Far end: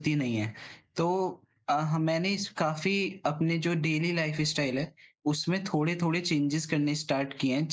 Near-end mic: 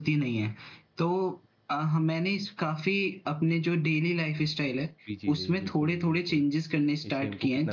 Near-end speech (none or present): present